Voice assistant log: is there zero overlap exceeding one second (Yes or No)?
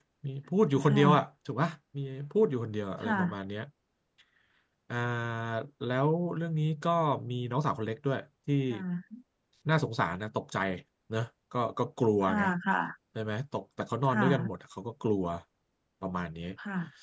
Yes